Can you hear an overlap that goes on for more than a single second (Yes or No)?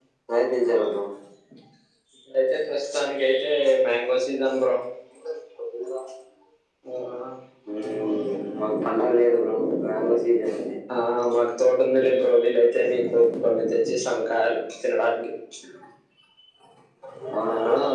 No